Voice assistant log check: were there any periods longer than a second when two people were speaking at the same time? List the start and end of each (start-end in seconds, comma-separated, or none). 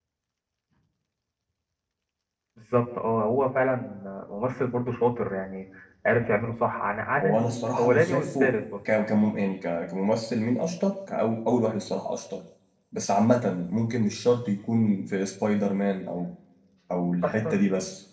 7.2-8.6